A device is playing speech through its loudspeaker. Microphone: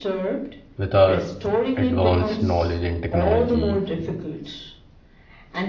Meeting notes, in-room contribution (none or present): present